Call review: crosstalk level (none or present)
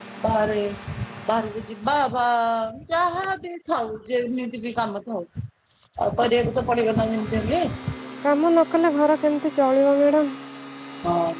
none